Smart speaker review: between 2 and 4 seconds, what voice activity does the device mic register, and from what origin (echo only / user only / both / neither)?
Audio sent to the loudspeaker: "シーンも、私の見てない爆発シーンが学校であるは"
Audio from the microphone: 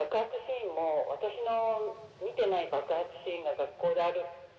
echo only